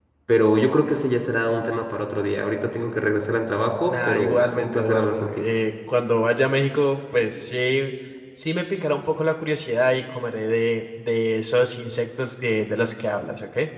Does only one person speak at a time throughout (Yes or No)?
No